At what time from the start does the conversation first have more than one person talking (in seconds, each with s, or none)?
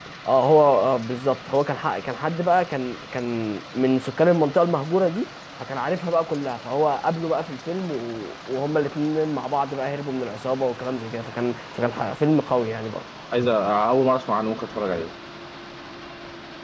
none